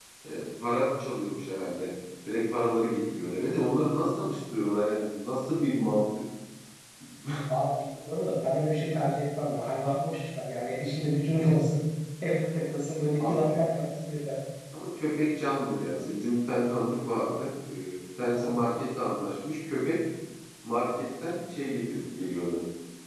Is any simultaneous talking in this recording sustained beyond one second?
No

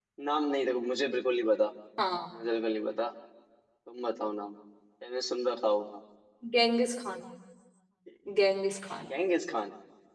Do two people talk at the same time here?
No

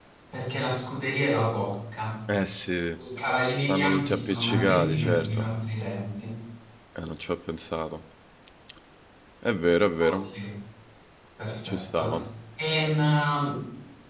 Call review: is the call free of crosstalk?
No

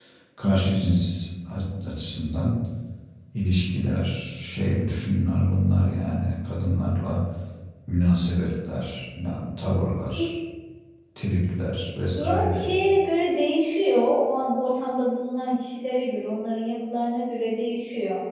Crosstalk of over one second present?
No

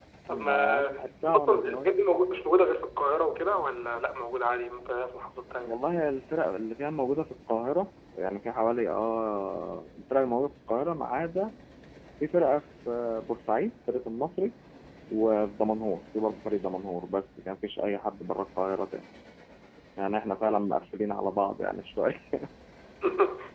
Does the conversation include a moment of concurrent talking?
Yes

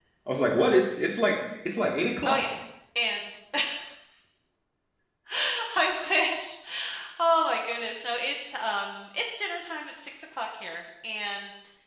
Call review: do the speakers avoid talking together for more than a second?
Yes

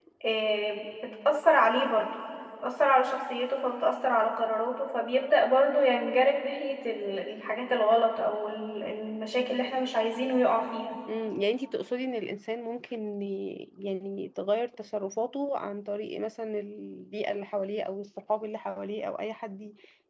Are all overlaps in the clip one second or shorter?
Yes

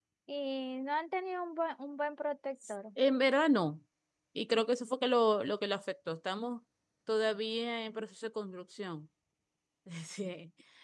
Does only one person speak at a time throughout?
Yes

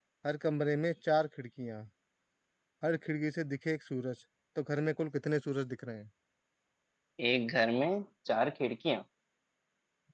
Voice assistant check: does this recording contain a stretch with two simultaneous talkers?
No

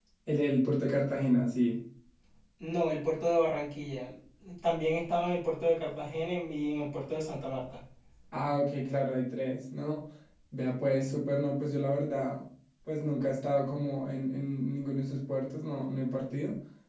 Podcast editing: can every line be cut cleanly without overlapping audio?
Yes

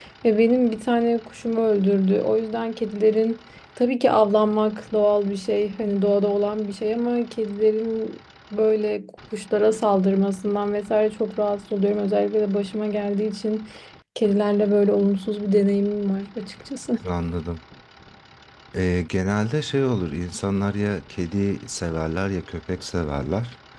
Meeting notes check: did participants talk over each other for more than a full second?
No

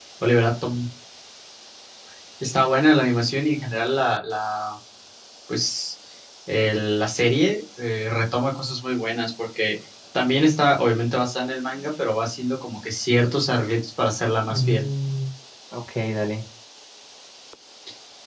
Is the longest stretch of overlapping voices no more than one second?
Yes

